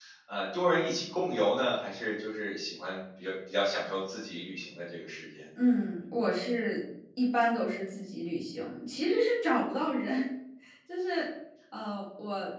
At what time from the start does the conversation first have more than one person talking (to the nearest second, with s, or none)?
none